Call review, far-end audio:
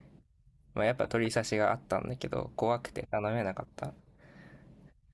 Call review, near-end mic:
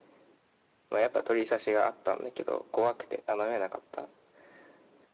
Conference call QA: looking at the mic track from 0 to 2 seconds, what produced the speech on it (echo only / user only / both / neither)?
echo only